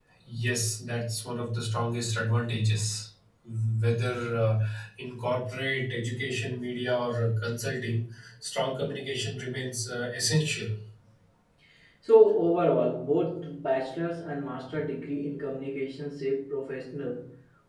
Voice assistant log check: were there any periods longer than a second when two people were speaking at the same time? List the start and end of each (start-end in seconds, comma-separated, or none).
none